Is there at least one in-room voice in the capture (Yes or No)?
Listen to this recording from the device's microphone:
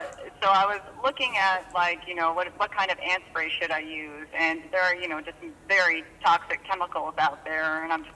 No